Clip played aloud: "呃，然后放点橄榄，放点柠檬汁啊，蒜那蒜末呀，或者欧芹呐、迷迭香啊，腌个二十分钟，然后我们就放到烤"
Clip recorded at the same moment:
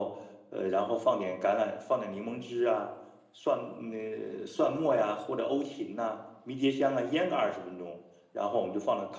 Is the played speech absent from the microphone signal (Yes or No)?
No